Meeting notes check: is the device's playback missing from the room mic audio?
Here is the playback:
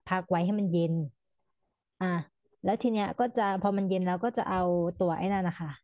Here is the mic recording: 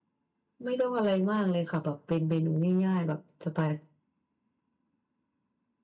Yes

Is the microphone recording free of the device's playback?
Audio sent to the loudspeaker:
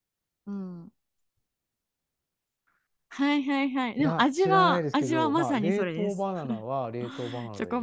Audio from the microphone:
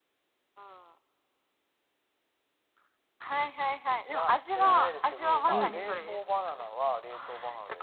No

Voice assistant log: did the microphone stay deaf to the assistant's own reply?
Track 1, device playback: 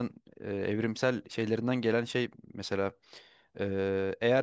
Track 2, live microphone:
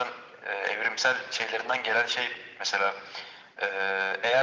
No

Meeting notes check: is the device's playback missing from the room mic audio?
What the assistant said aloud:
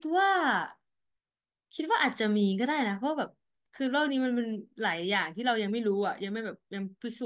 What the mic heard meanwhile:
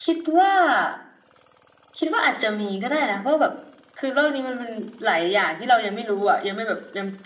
No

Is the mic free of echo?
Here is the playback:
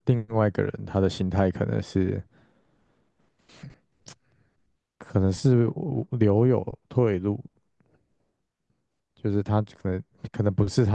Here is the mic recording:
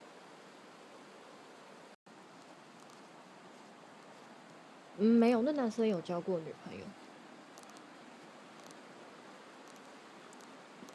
Yes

